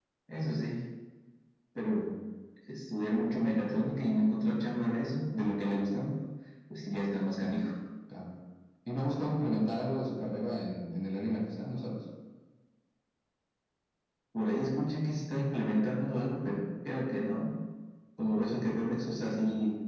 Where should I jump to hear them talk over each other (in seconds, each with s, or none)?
none